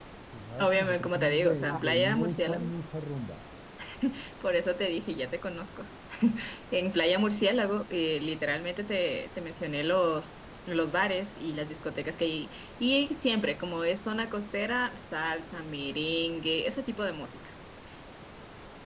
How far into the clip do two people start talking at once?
0.6 s

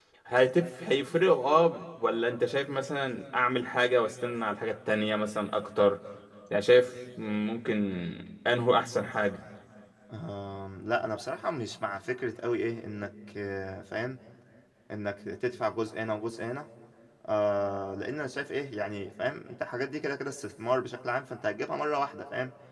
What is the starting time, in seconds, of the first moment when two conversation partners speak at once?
none

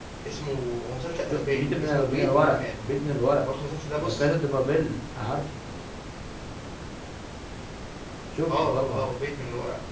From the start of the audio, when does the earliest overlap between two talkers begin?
1.3 s

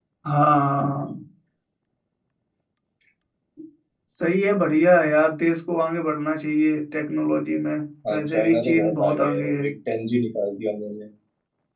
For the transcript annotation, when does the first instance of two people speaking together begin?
8.0 s

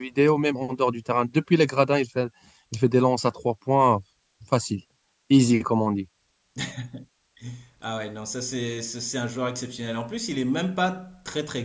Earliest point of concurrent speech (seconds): none

